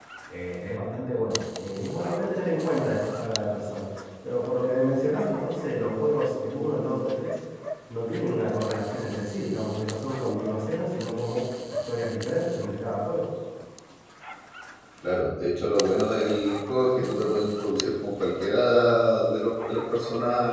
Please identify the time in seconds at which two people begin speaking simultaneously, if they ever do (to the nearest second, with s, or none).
none